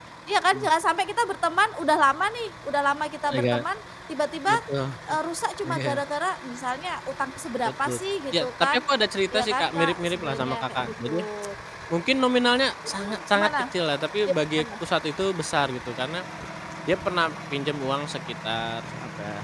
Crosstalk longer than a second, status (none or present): present